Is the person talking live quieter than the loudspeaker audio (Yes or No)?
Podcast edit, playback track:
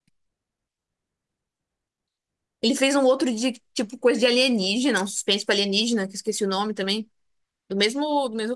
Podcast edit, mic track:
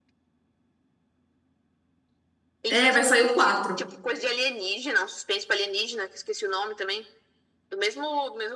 No